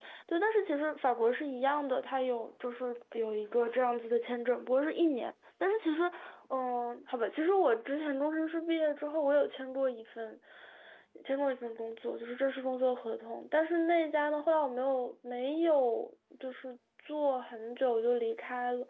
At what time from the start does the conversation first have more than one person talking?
none

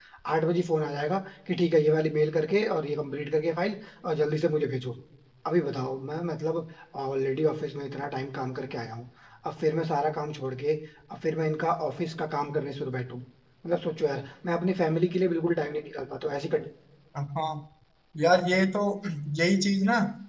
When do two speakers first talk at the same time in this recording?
none

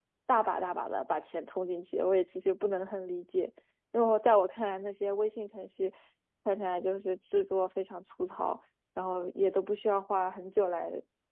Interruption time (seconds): none

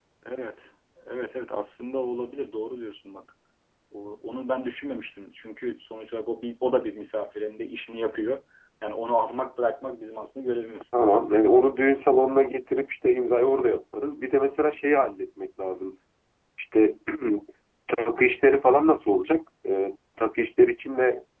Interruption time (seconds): none

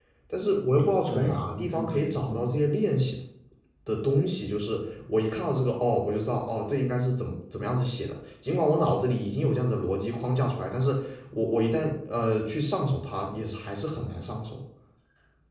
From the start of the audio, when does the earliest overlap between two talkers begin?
1 s

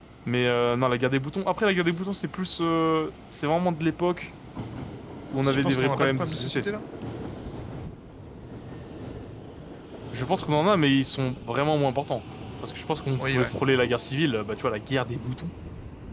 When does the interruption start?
5 s

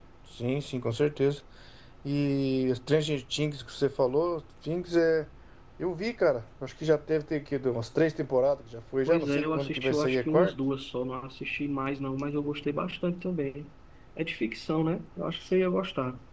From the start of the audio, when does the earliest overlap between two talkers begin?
9 s

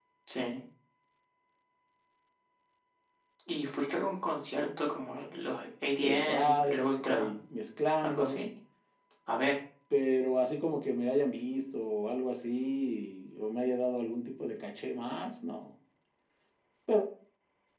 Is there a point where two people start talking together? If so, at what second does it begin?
6 s

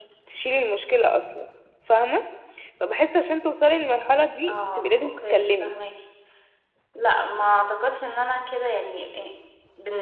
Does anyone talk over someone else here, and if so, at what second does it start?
4 s

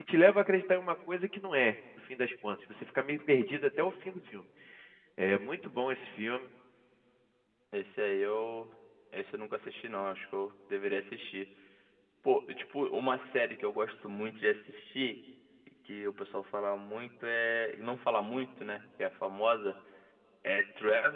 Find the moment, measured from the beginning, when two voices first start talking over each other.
none

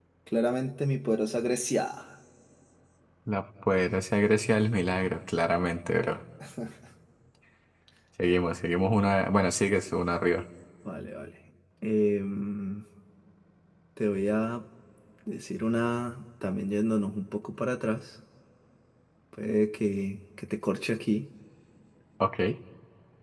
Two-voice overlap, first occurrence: none

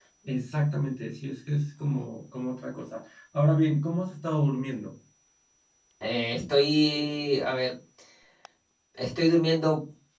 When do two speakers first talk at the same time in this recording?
none

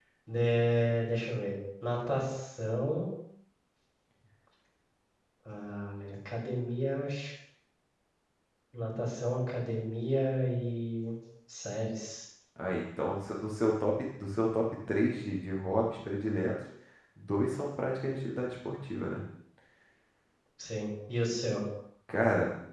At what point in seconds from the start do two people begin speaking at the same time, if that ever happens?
none

